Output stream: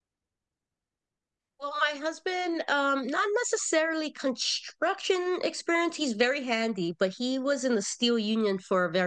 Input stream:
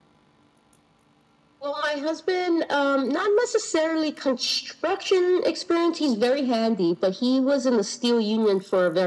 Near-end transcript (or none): none